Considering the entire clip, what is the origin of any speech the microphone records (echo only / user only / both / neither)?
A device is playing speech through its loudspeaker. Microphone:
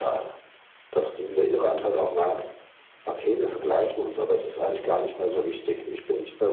echo only